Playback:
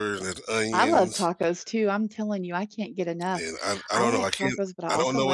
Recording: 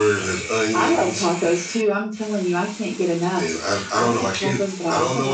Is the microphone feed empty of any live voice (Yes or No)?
Yes